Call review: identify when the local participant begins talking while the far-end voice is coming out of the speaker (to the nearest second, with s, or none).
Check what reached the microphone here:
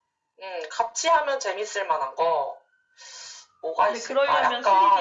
4 s